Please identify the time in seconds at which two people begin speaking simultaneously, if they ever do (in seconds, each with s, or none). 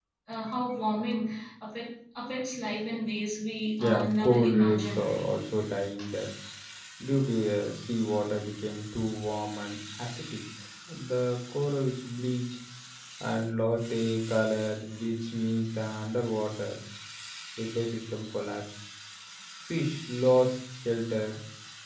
3.8 s